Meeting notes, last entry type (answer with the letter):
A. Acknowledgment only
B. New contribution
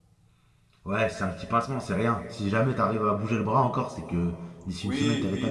B